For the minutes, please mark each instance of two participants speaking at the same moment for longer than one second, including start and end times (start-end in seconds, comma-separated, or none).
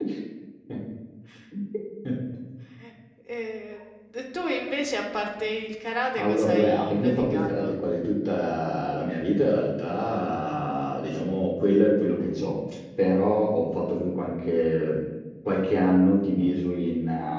6.2-7.8